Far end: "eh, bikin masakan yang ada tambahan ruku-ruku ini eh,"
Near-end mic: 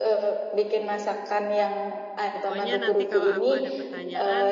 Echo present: Yes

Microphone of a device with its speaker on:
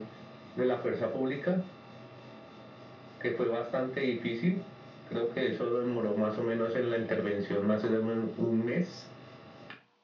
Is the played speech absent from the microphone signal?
No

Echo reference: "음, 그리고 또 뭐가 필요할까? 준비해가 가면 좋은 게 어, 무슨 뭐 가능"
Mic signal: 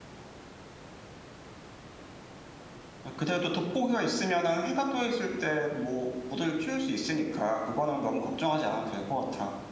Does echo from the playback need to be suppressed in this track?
No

